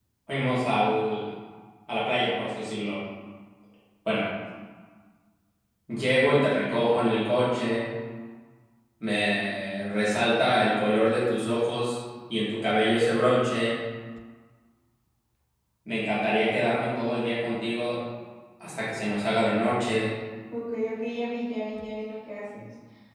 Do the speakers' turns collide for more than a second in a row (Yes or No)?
No